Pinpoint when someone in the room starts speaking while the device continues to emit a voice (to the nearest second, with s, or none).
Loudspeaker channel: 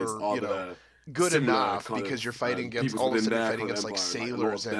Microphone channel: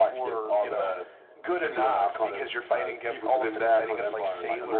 none